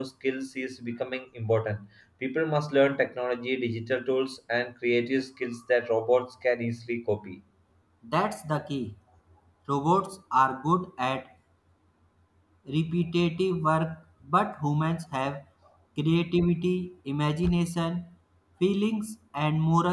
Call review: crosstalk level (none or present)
none